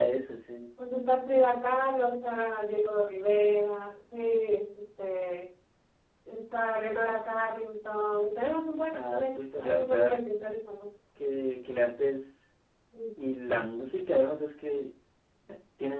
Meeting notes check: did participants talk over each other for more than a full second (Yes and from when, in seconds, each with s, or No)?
Yes, from 8.9 s